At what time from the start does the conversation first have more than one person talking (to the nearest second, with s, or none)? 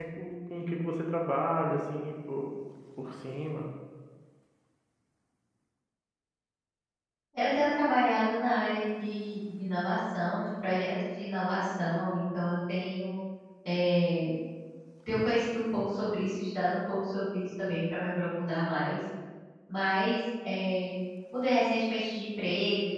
none